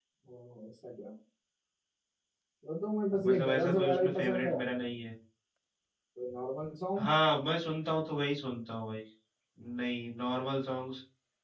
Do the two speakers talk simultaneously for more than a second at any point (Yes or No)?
Yes